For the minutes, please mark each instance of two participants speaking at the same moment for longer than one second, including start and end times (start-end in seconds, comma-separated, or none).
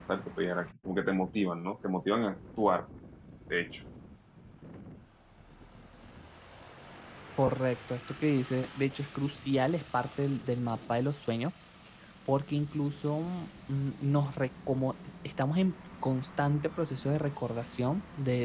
none